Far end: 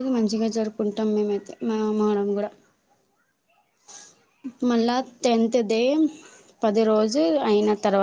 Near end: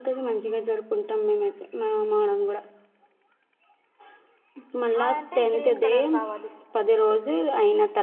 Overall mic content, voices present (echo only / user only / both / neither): both